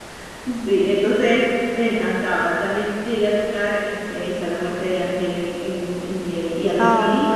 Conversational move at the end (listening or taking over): listening